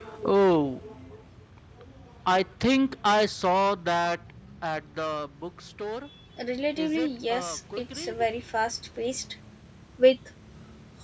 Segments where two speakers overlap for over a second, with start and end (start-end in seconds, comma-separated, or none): 6.8-8.2